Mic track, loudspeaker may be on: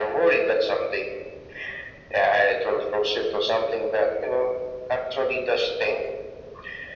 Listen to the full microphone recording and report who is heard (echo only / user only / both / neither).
echo only